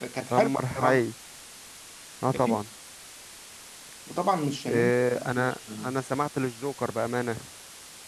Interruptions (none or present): present